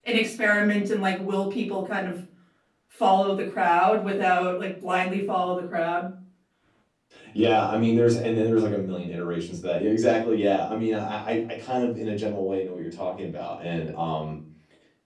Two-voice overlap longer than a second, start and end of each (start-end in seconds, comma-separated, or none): none